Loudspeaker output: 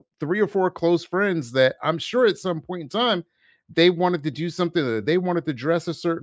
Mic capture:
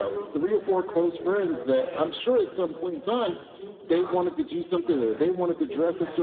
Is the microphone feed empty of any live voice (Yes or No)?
No